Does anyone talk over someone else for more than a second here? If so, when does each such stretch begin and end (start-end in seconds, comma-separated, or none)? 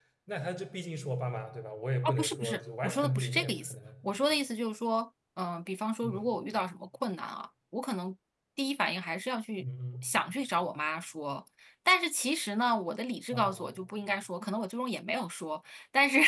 2.0-3.8